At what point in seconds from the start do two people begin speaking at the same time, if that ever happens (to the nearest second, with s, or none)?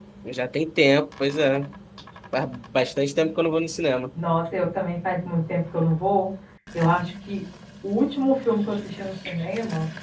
none